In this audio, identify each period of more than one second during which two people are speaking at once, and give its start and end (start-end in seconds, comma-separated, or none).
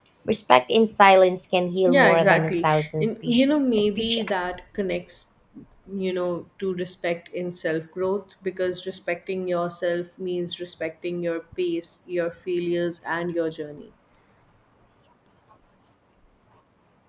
1.9-4.4